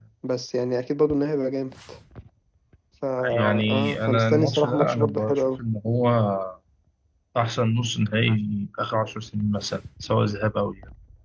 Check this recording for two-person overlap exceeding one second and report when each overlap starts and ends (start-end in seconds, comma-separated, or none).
3.3-5.6